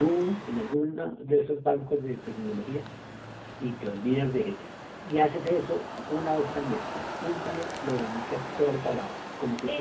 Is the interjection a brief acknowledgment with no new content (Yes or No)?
No